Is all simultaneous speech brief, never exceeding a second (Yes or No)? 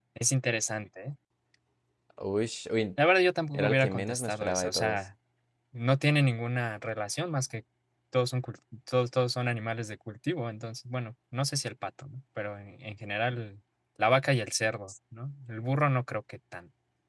No